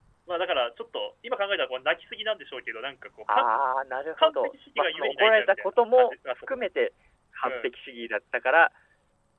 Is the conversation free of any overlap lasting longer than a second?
No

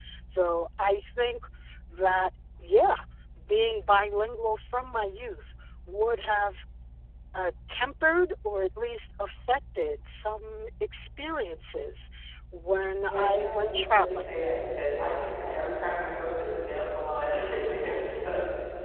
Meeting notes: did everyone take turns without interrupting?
No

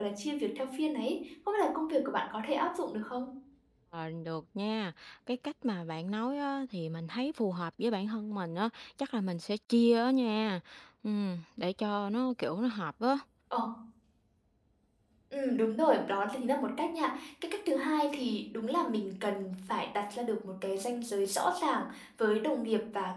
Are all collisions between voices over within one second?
Yes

